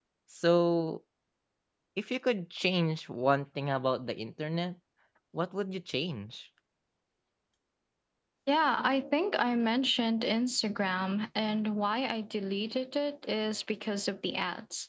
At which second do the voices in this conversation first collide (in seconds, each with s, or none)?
none